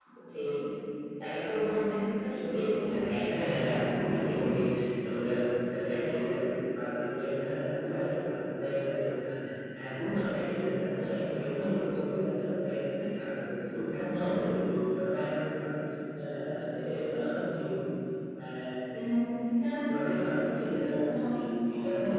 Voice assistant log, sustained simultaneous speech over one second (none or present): present